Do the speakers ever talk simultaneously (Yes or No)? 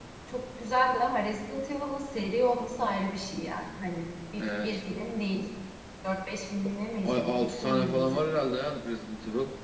Yes